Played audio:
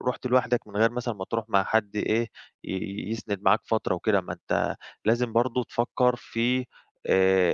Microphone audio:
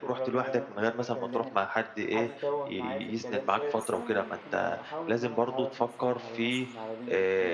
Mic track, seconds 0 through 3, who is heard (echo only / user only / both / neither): both